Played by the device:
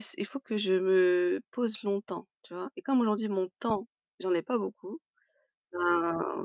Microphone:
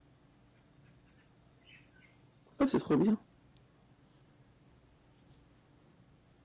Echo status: none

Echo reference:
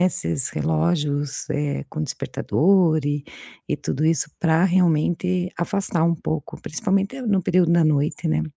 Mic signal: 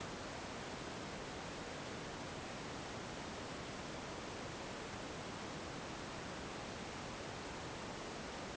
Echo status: none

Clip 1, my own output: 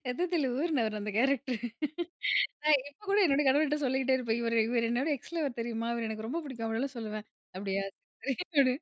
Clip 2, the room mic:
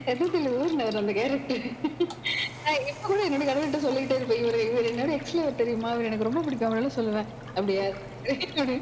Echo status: present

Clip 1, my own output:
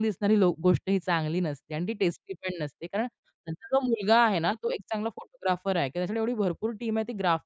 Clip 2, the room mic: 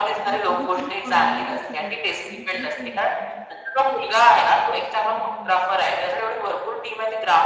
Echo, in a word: present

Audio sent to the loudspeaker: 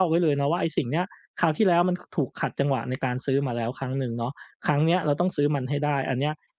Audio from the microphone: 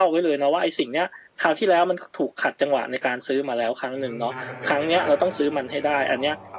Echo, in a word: present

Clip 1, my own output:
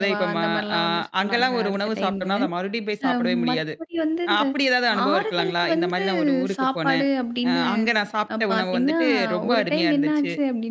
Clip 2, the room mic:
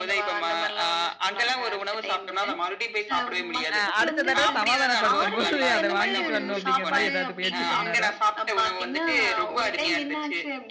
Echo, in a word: present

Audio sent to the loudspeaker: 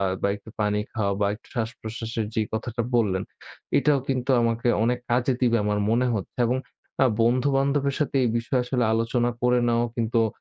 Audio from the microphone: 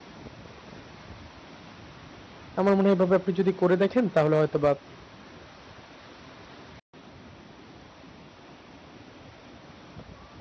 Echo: none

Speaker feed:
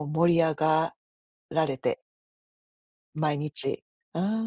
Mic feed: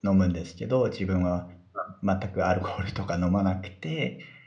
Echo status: none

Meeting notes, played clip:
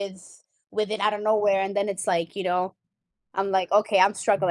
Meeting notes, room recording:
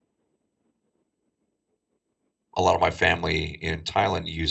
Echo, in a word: none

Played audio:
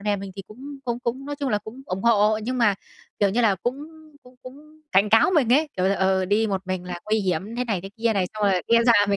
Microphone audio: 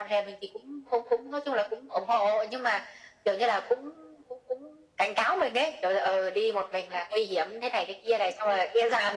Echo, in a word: present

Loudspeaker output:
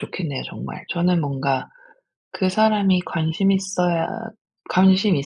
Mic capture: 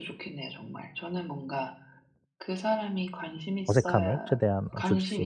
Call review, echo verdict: present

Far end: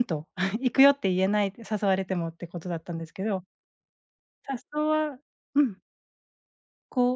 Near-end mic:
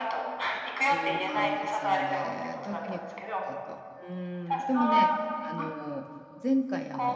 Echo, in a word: present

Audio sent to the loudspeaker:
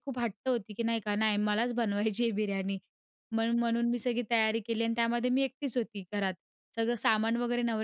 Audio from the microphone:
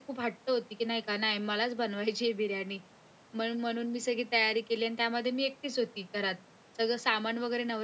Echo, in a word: present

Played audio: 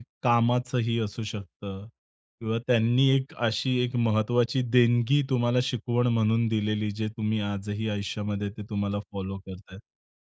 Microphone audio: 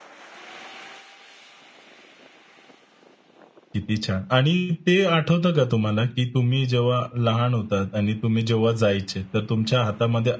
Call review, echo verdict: none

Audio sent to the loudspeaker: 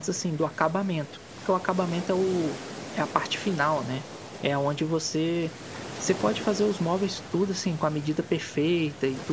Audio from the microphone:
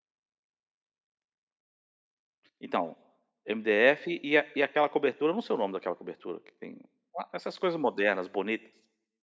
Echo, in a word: none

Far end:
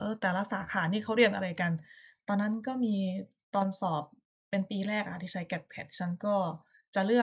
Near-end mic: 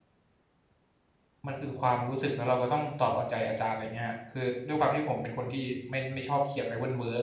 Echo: none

